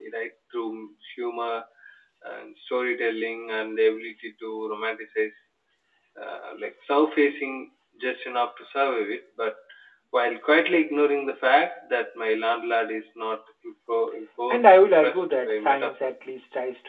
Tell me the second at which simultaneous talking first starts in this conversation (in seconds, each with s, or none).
14.5 s